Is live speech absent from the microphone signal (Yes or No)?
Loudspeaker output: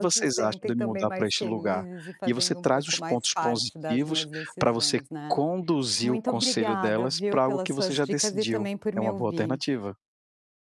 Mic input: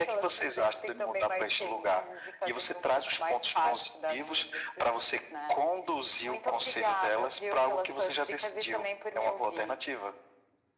Yes